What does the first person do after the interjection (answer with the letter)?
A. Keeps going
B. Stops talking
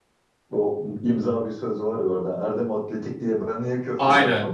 B